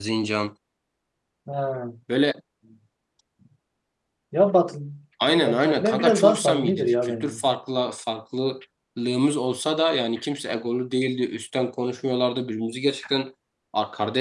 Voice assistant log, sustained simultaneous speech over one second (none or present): present